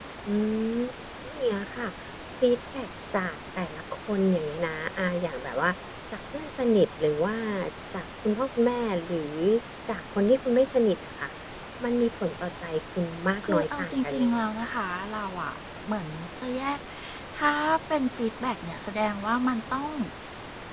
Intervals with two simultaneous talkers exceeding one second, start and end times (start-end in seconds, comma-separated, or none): 13.5-14.8